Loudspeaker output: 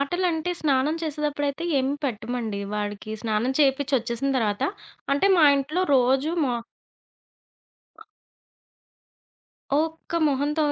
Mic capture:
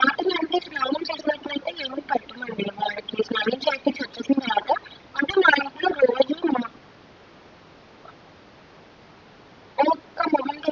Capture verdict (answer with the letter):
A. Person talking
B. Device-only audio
B